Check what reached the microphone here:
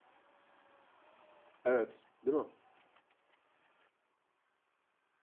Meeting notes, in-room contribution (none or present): present